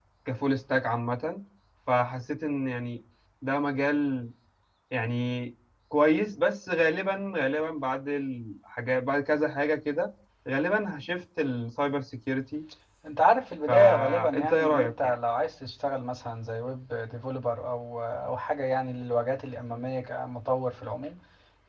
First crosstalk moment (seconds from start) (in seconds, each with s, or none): 13.7 s